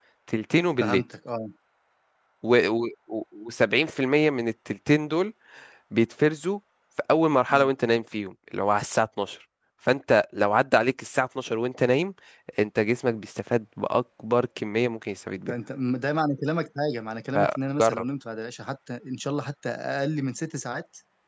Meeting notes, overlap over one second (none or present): none